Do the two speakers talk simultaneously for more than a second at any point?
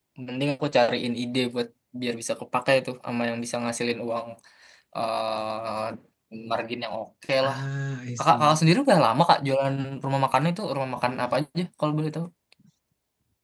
No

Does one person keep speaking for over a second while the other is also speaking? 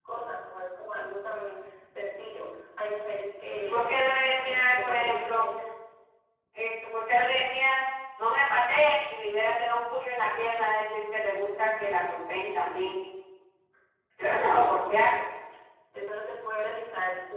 Yes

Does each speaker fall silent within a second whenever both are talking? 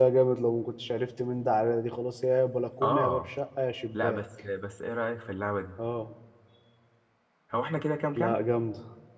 Yes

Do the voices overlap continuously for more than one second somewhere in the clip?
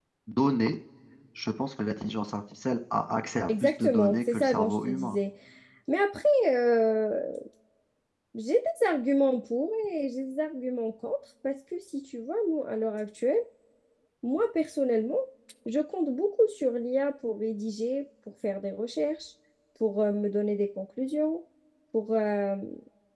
Yes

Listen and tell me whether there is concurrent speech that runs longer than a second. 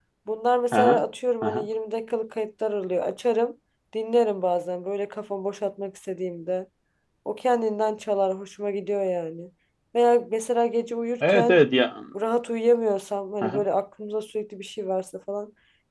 No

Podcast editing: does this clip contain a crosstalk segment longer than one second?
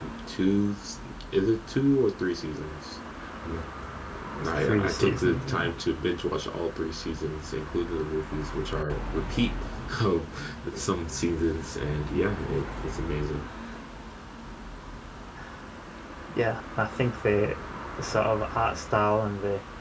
Yes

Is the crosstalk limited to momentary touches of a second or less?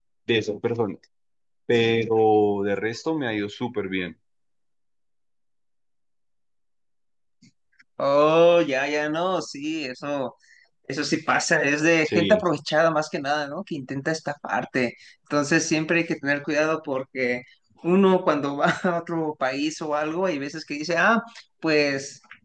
Yes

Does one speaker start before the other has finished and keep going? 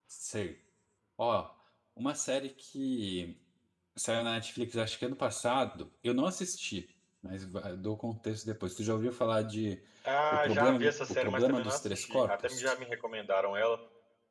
Yes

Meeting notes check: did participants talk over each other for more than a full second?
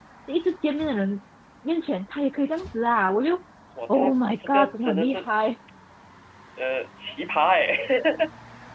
Yes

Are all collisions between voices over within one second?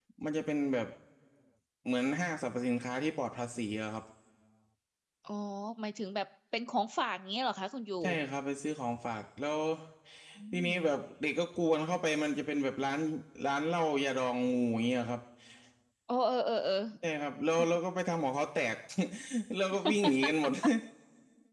Yes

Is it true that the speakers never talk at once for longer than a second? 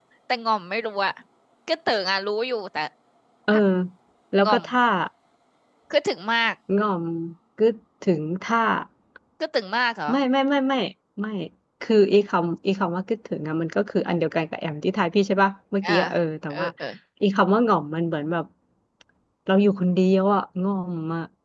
Yes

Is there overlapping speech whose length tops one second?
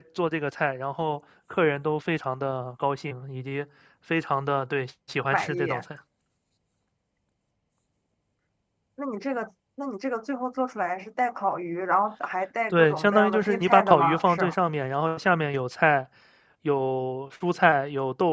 Yes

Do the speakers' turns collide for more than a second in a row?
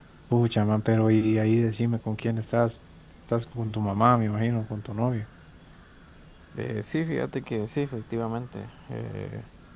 No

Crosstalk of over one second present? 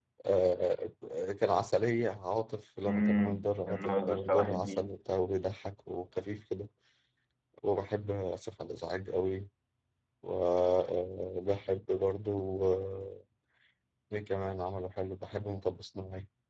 Yes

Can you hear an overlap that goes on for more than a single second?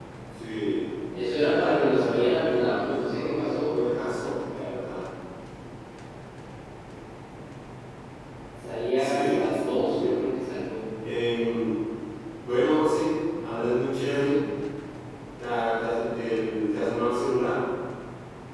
Yes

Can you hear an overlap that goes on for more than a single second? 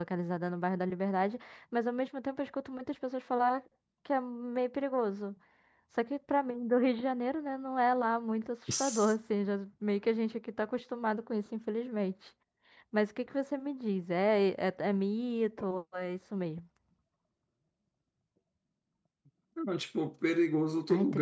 No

